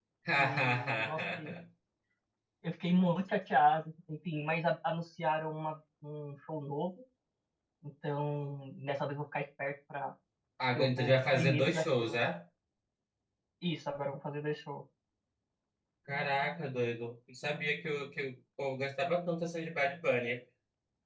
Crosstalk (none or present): present